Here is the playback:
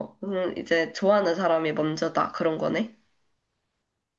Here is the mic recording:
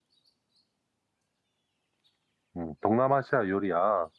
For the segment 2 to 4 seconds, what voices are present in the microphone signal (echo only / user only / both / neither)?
user only